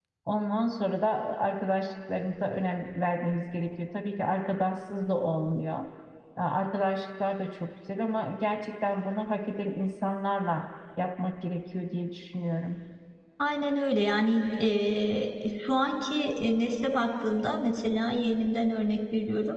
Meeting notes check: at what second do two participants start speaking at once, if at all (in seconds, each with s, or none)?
none